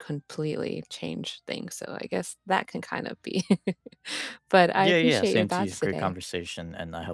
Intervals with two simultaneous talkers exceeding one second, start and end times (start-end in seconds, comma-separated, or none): 4.8-6.1